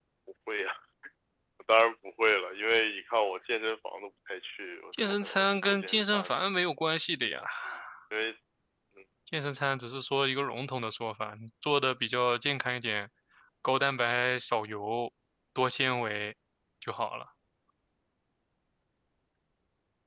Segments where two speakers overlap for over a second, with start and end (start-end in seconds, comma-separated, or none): 5.0-6.4